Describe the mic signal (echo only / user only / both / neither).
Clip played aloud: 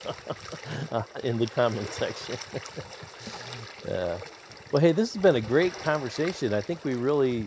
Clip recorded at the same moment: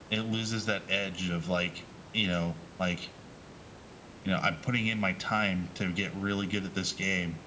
user only